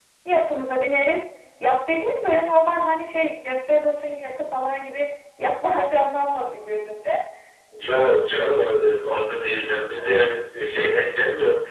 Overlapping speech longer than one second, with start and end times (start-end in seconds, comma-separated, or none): none